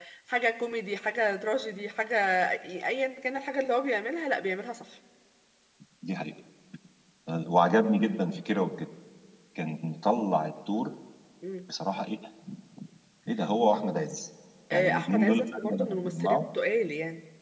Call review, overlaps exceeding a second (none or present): present